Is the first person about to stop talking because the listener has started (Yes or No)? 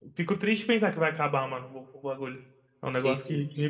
Yes